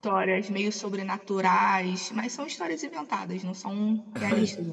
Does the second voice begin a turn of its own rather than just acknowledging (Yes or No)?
Yes